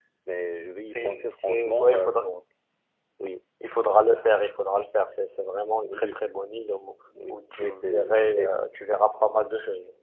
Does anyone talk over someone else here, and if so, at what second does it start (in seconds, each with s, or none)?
0.9 s